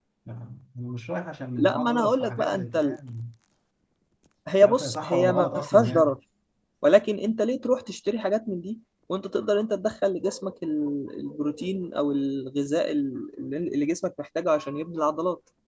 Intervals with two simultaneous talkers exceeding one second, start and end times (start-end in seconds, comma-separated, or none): 1.6-3.0, 4.6-6.2